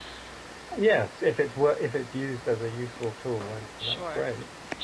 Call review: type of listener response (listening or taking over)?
taking over